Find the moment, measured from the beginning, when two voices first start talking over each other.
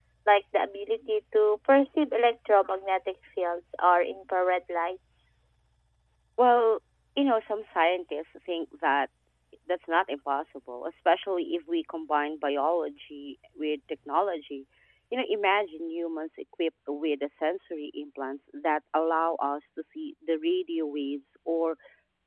none

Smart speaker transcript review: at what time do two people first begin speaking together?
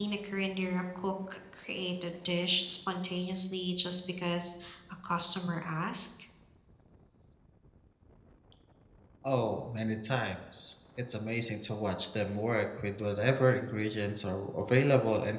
none

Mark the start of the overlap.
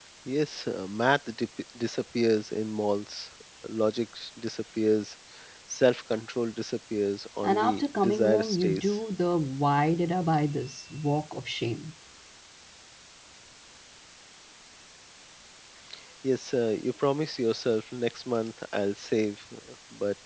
7.4 s

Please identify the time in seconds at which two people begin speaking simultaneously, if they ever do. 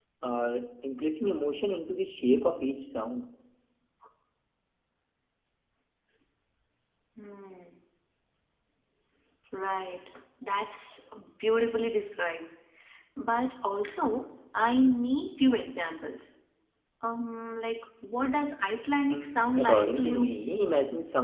19.1 s

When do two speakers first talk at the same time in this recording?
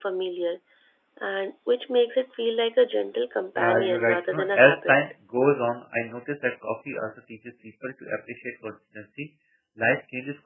3.6 s

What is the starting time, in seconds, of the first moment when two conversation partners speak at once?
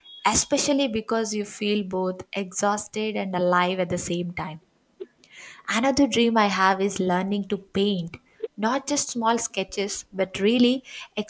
none

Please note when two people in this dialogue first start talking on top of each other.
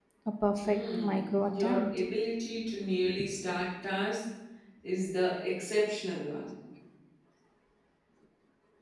0.6 s

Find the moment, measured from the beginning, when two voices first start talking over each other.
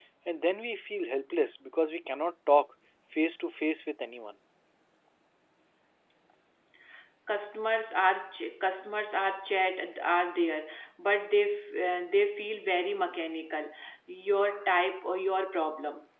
none

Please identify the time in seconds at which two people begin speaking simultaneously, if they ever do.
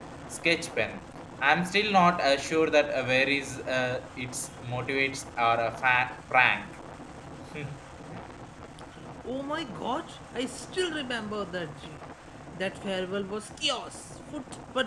none

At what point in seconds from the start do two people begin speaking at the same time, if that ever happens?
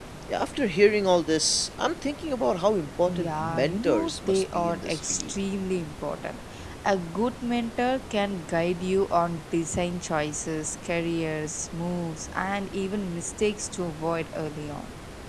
3.1 s

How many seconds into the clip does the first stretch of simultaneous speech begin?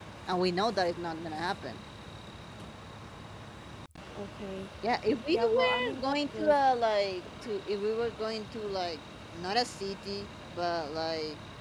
5.3 s

